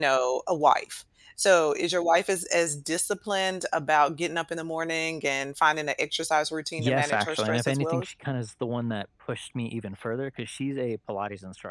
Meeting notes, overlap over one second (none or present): present